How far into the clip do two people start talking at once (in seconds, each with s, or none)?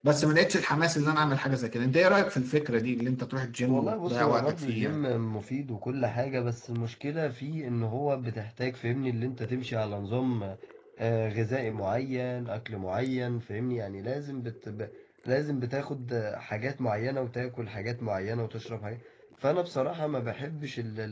3.7 s